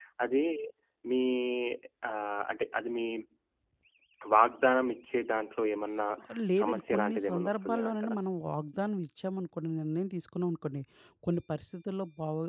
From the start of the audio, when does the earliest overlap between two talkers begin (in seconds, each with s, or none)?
6.6 s